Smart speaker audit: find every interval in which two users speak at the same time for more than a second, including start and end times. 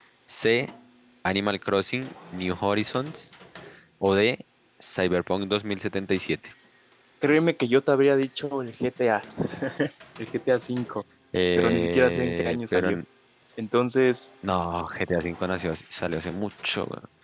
11.6-13.0

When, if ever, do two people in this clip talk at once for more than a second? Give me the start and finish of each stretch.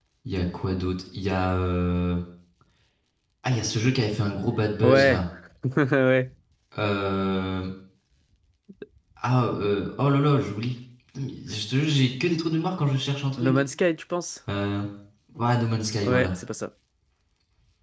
none

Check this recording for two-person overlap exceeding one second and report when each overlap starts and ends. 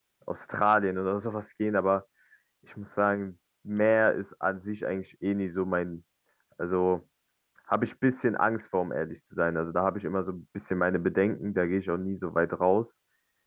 none

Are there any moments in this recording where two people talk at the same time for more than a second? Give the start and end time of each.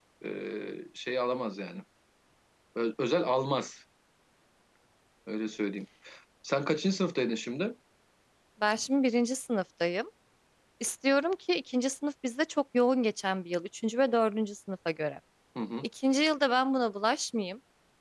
none

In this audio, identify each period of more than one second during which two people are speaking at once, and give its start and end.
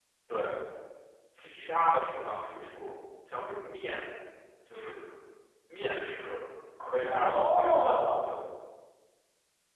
7.0-8.3

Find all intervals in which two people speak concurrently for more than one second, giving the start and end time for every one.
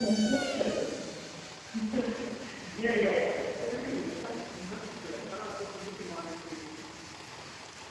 2.7-4.3

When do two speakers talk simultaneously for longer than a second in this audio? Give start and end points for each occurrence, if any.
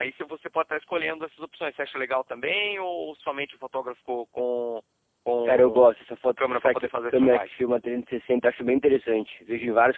6.4-7.6

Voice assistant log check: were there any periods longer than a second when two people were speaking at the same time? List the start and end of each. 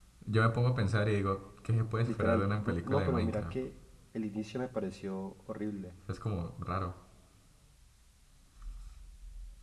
2.0-3.6

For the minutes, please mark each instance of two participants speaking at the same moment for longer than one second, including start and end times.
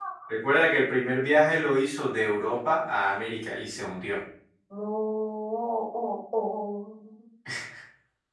none

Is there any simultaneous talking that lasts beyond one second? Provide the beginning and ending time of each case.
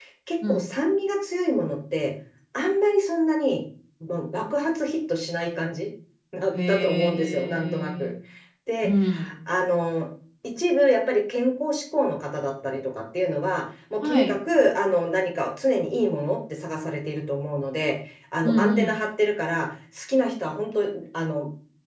6.7-8.1

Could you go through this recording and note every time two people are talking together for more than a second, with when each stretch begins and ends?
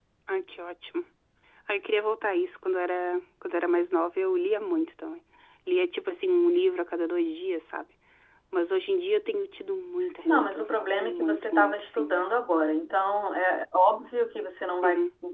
10.2-12.2

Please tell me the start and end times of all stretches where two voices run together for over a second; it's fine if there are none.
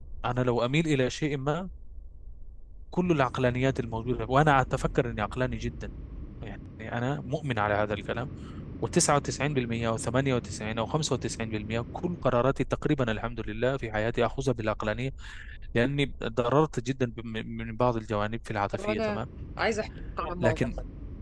none

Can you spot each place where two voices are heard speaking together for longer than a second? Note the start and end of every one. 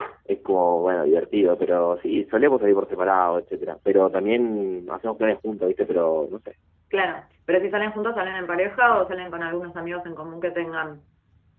none

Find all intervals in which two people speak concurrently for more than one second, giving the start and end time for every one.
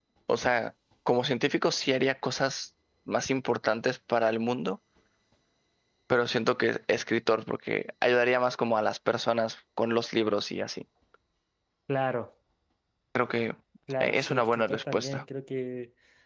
14.0-15.2

